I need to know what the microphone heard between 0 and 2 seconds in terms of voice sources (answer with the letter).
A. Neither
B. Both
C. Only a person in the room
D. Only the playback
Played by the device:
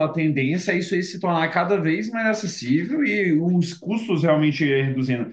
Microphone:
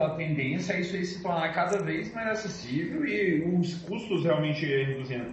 D